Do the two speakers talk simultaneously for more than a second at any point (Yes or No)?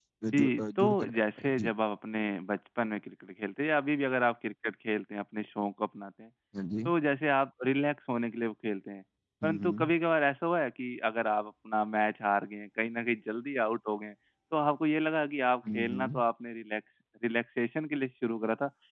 Yes